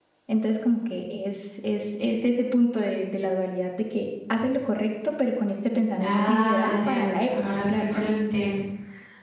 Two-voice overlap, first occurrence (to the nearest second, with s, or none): 6 s